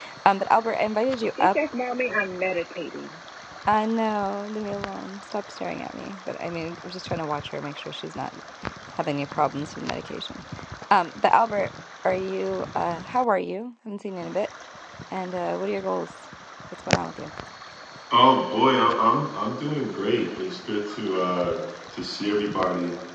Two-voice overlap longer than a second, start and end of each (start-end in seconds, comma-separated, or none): none